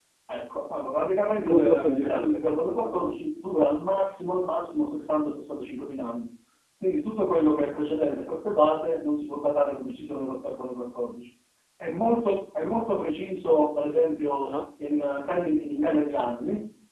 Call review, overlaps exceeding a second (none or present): present